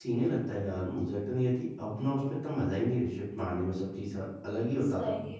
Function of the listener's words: taking over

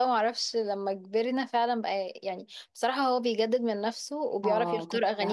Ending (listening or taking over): taking over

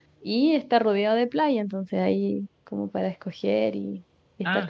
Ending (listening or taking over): taking over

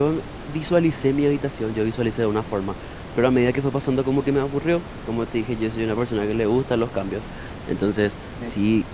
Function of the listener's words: listening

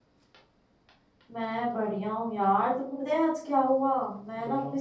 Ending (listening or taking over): listening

